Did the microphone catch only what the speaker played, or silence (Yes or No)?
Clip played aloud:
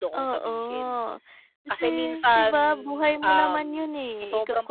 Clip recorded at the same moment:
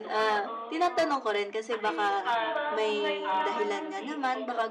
No